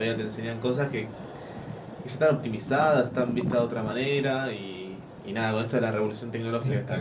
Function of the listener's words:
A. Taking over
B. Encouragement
B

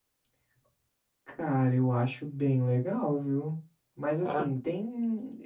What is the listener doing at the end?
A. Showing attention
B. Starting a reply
A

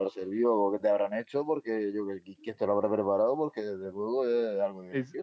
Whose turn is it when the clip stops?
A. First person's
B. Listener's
B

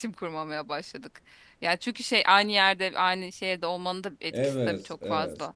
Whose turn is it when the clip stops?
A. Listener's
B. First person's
A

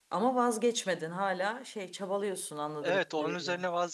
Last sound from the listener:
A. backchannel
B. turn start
B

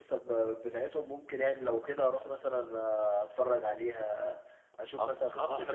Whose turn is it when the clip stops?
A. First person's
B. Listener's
B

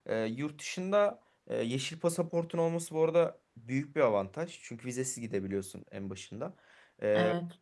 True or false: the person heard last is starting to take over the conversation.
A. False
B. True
A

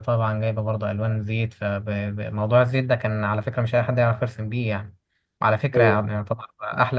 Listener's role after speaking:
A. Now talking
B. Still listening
B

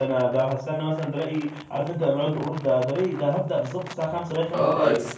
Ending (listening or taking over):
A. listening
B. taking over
B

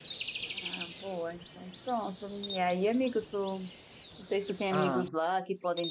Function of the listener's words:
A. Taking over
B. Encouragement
B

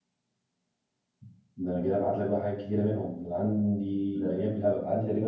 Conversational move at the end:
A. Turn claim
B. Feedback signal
B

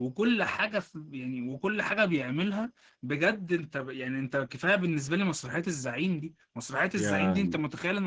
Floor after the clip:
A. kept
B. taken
A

